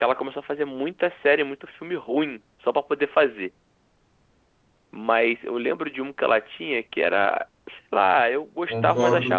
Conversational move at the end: taking over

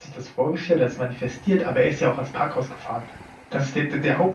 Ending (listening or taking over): listening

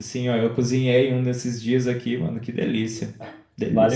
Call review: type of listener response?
taking over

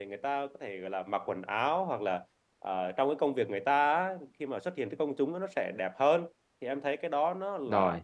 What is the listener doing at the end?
listening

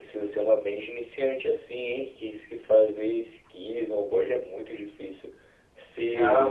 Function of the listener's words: taking over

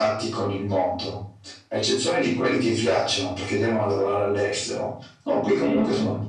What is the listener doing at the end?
listening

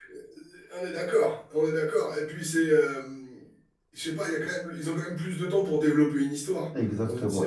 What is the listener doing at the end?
taking over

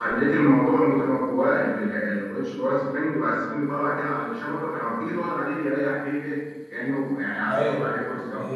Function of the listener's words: taking over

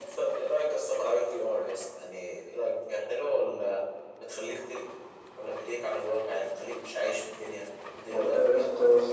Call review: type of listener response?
taking over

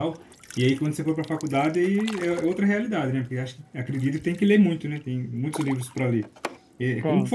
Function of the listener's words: listening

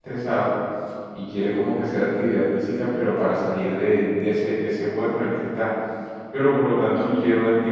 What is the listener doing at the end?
listening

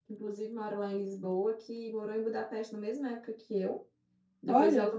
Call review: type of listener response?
listening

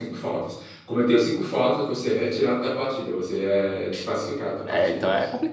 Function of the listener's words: taking over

